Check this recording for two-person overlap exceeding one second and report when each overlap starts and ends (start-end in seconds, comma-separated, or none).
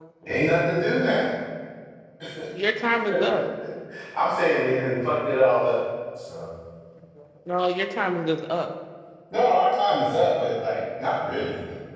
none